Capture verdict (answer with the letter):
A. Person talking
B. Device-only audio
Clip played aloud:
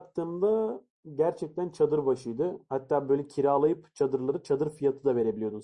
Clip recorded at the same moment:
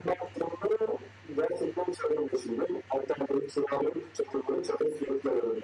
B